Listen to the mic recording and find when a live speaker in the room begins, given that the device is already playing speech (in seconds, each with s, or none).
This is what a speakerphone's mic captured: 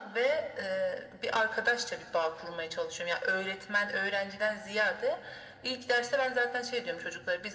none